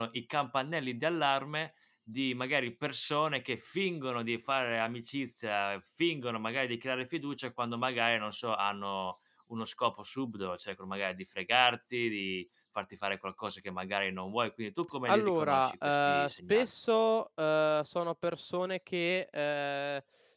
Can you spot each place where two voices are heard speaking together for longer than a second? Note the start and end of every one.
15.1-16.7

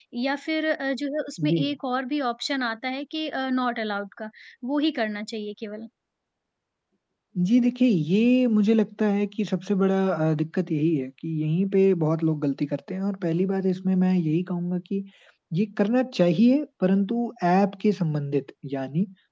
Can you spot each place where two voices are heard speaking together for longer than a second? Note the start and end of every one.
none

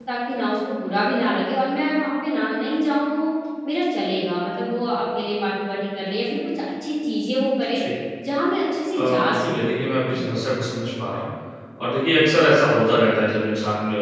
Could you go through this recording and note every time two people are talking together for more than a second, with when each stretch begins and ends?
8.9-10.2

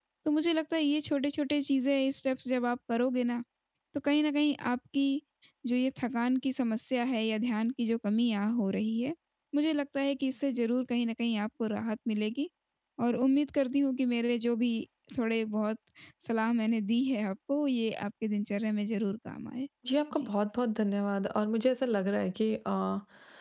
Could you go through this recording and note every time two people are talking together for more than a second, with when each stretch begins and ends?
none

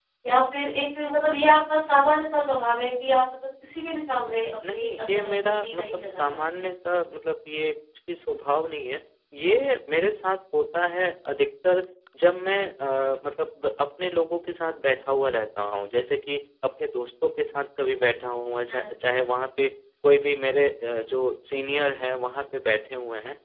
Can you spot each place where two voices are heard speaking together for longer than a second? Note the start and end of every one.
4.7-6.7

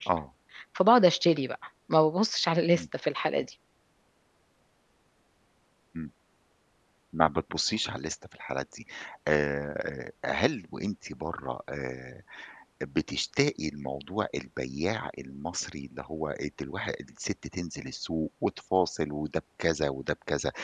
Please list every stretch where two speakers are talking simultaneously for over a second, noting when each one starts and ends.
none

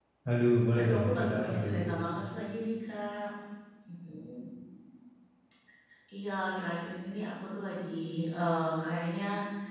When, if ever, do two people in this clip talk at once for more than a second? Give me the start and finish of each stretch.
0.7-1.9

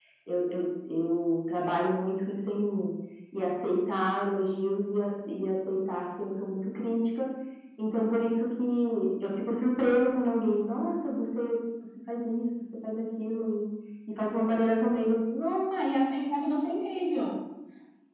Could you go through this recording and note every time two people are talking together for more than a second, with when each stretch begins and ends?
none

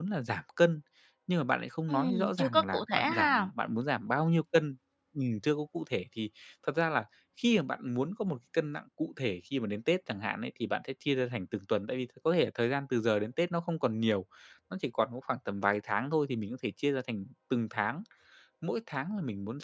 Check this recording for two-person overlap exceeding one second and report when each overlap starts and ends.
1.9-3.5

